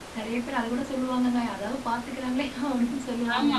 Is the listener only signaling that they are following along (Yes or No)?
No